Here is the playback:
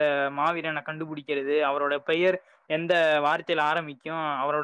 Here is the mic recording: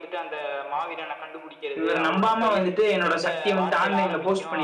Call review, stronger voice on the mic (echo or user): user